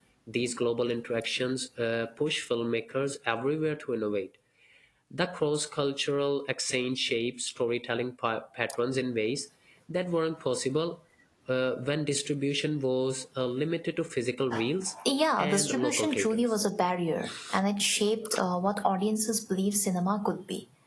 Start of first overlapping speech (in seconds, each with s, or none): 15.4 s